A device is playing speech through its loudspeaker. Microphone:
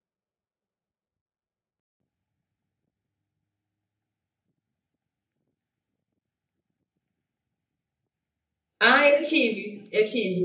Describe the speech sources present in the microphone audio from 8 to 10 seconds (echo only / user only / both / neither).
user only